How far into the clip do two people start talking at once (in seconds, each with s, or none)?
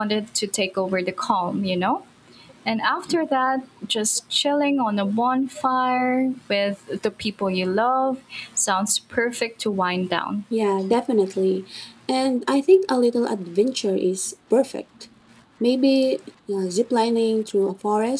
none